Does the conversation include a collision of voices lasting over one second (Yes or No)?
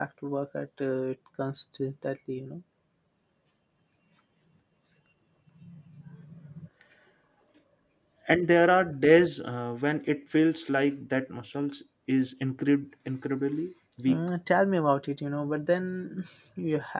No